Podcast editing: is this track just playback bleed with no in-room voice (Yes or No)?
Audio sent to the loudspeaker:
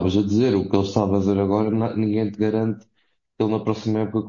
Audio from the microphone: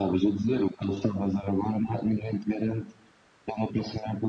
Yes